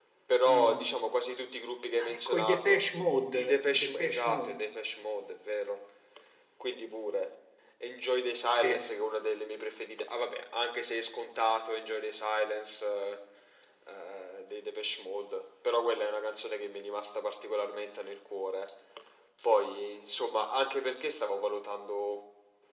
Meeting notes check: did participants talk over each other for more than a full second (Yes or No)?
Yes